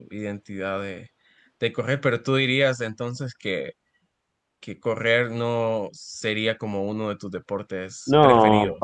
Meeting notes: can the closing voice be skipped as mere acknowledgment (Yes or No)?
No